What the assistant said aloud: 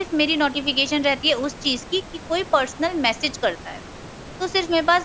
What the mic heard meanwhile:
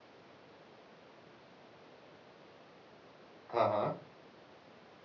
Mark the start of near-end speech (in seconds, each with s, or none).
3.5 s